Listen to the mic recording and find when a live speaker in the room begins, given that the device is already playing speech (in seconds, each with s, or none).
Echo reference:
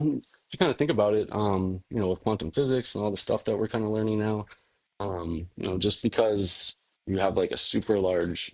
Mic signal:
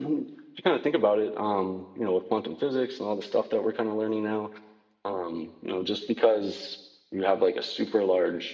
none